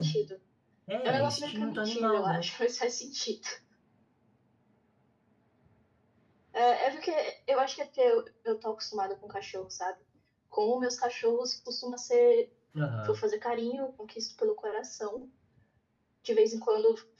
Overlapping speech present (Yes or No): Yes